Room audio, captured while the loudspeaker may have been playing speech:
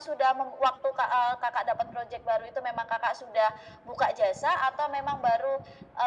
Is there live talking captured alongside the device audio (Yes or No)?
No